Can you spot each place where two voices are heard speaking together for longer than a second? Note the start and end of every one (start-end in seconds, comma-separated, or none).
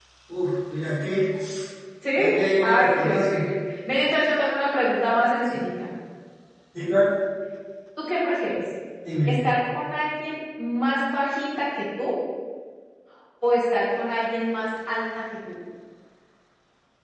2.1-3.4